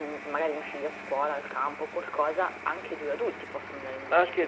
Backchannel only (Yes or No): No